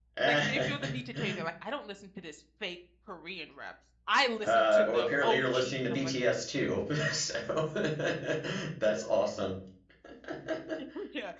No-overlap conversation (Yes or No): No